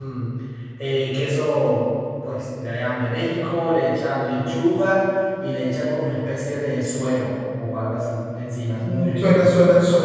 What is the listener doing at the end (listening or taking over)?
taking over